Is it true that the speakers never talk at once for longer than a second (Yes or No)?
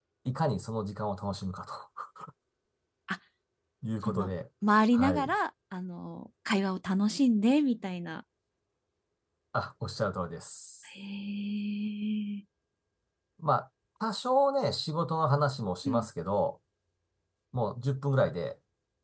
Yes